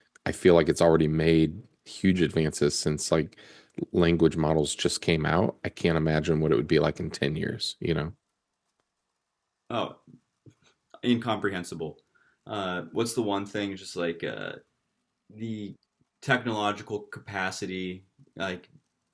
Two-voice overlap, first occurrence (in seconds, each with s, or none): none